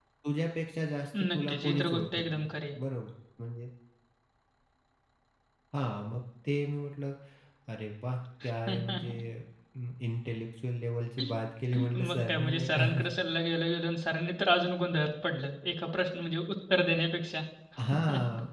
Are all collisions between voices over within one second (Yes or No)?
No